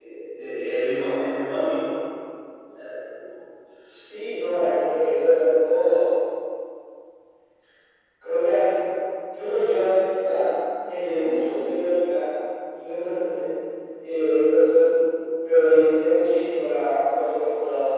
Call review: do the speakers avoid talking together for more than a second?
Yes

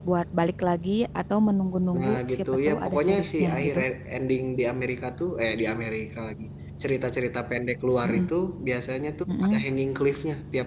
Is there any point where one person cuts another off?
Yes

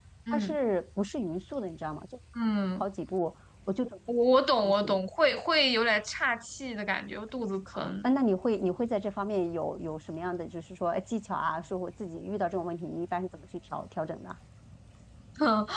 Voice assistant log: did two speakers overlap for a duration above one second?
No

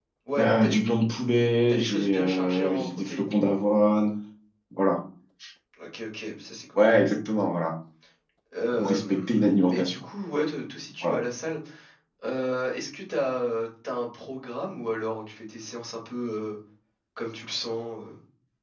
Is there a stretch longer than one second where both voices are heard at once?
Yes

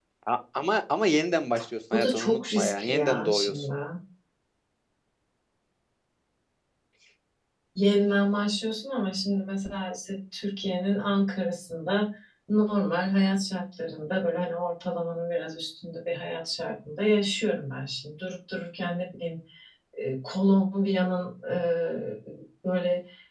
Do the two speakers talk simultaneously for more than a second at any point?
Yes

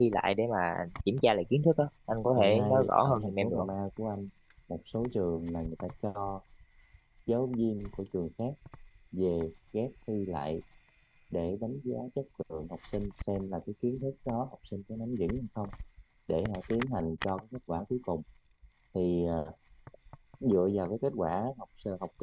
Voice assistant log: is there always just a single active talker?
No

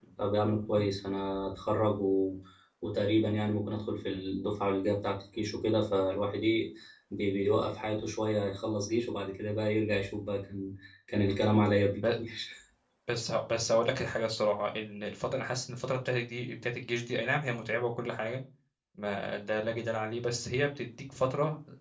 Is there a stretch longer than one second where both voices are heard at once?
No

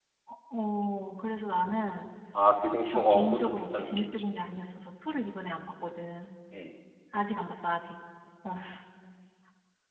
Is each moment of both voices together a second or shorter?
No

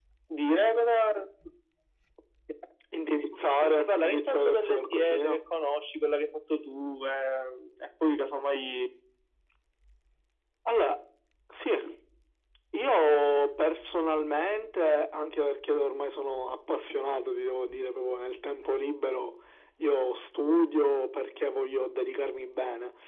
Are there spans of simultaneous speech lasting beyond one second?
Yes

